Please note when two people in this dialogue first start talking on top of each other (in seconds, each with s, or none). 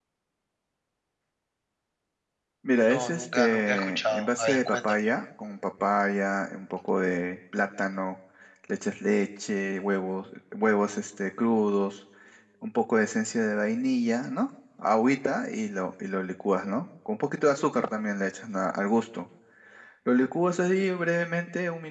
2.9 s